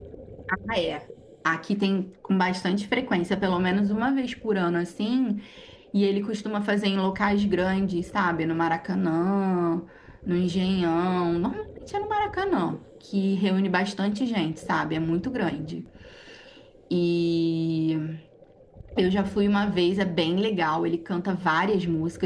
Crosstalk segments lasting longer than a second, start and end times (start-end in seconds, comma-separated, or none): none